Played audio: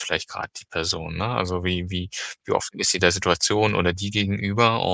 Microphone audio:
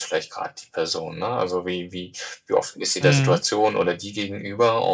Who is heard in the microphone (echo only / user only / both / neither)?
both